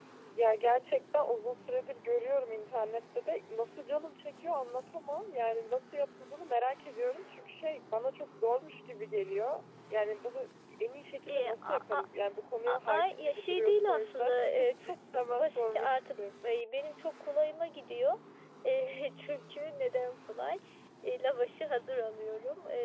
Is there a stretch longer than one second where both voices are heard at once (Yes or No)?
Yes